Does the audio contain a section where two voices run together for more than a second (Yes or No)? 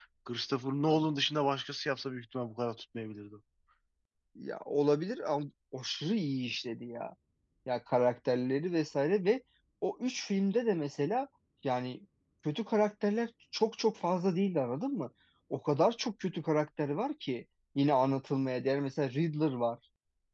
No